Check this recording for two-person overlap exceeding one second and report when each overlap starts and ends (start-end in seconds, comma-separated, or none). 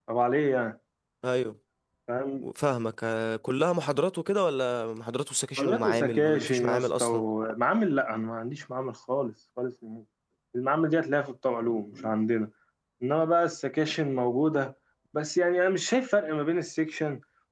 5.6-7.2